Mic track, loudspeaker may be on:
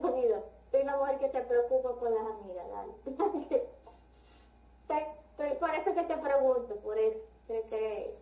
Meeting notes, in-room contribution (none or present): none